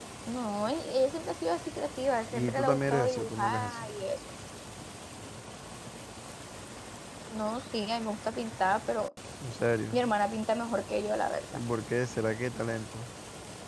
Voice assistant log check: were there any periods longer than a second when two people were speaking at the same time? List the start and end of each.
2.3-3.9

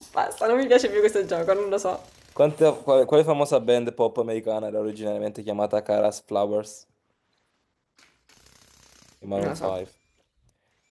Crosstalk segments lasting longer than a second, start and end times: none

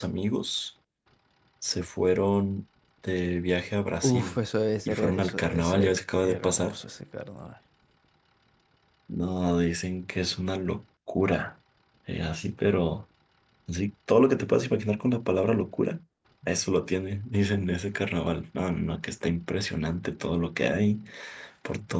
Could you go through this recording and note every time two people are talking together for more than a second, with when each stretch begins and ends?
4.9-6.8

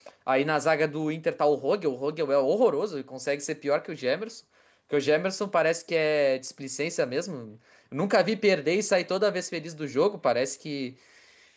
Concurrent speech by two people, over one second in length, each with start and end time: none

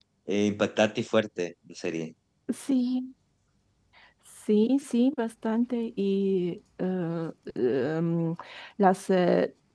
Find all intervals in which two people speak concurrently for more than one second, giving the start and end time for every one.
none

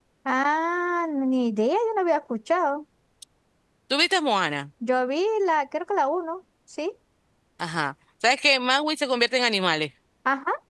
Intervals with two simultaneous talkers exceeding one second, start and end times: none

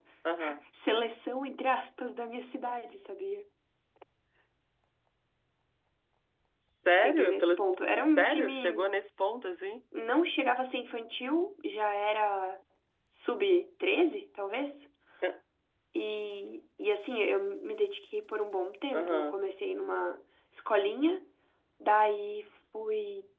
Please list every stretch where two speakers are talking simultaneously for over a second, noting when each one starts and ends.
6.9-8.9

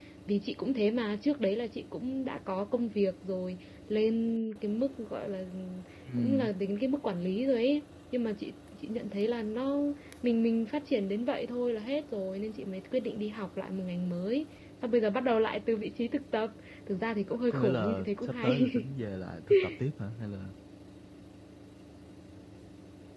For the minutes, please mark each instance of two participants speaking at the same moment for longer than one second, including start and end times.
17.5-18.7

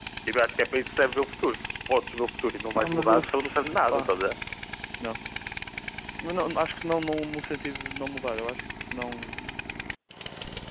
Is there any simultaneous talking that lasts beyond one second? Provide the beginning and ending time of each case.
2.7-4.3

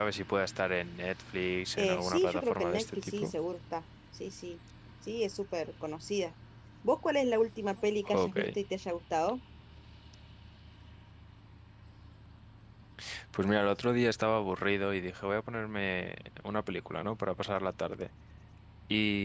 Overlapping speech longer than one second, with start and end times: 1.8-3.3

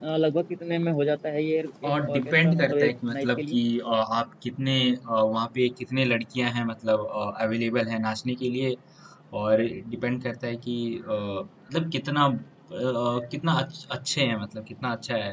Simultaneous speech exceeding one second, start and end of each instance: 1.9-3.6

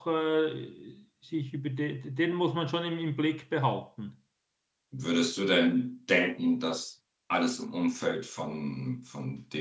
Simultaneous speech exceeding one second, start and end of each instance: none

